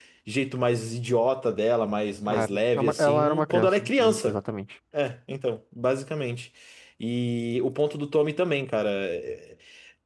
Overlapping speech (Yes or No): Yes